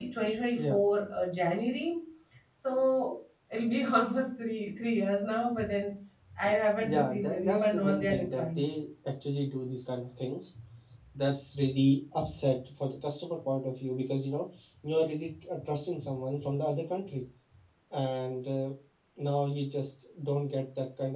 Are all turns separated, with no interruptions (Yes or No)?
No